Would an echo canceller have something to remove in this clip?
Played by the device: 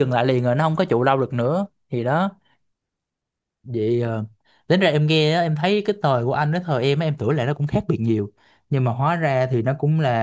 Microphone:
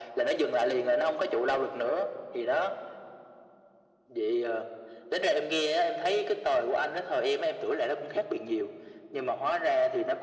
Yes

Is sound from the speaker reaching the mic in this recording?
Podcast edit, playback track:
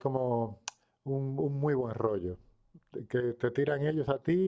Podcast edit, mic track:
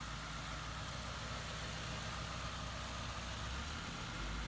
No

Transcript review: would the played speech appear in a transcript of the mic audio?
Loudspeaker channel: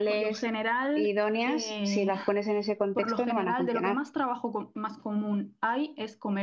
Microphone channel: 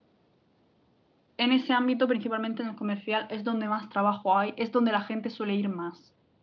No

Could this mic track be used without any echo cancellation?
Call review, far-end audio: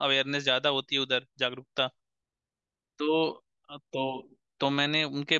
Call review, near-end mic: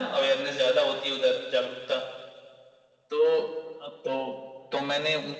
No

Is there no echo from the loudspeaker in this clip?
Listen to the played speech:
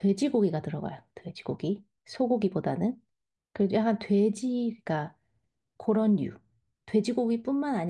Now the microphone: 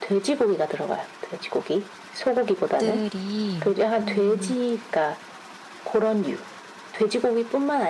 No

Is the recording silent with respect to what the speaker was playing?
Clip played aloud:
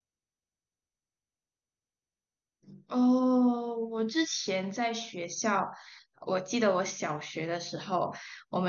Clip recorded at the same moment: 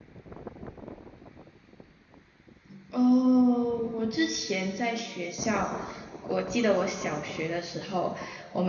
No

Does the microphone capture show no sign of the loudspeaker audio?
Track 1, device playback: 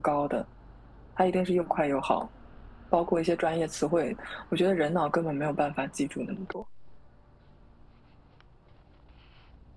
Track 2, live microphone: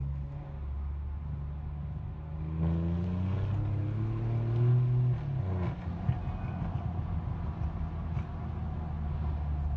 Yes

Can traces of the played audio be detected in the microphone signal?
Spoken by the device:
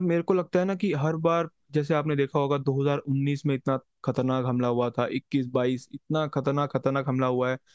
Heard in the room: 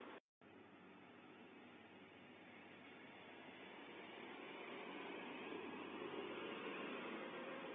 No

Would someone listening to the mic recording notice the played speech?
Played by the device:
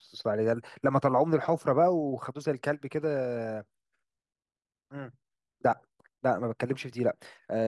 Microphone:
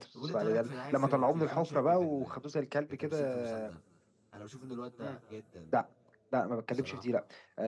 Yes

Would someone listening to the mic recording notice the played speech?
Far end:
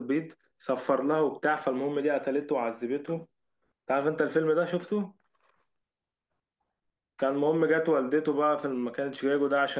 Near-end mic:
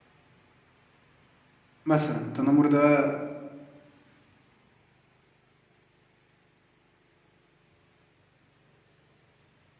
No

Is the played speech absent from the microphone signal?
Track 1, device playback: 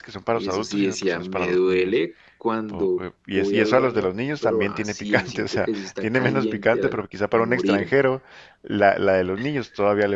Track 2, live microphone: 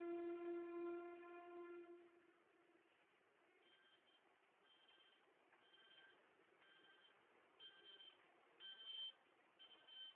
Yes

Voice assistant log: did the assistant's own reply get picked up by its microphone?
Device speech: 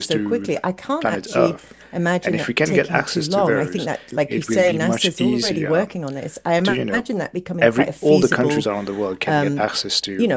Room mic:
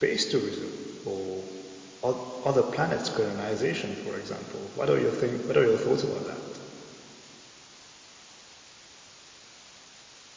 No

